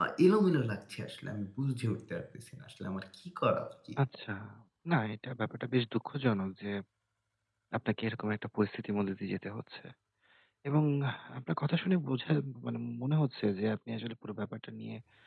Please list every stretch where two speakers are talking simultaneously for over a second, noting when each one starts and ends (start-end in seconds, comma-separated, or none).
none